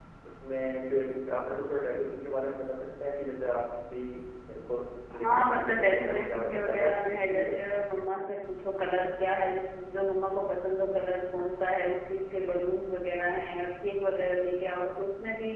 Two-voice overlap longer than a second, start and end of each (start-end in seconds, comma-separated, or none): 5.1-7.6